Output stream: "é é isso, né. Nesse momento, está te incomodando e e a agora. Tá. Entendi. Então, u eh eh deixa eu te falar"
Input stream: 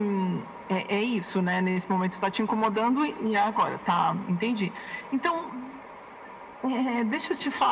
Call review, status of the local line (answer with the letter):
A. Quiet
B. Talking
A